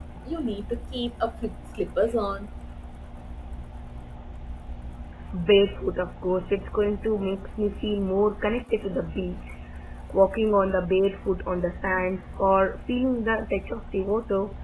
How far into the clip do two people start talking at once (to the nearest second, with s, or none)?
none